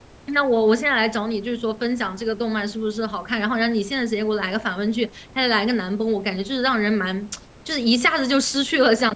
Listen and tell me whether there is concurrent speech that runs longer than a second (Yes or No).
No